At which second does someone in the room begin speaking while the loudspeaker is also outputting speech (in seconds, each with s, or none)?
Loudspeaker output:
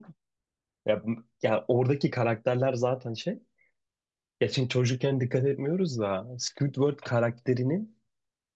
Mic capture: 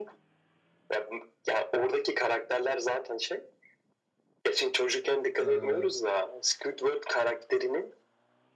5.4 s